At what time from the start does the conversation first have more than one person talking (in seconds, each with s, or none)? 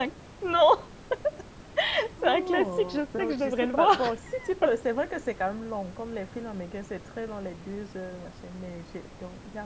2.2 s